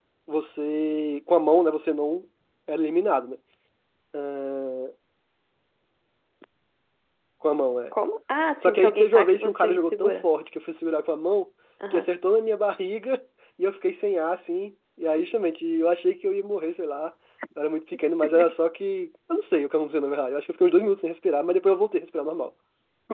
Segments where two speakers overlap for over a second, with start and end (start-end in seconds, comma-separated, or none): 8.6-10.2